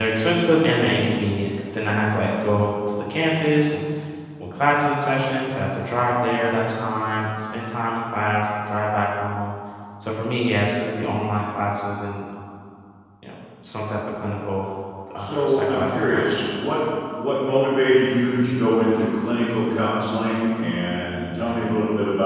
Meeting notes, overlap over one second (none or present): present